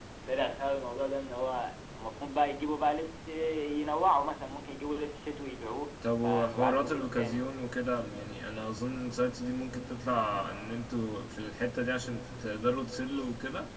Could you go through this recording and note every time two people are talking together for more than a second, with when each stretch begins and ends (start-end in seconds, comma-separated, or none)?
6.2-7.5